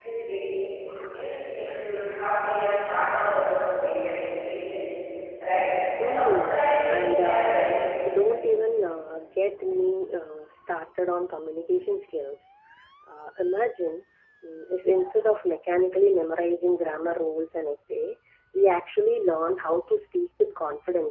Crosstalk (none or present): present